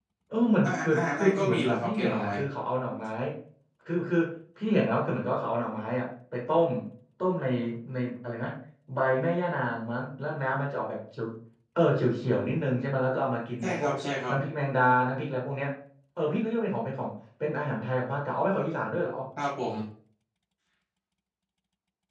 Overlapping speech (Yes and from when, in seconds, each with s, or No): Yes, from 0.6 s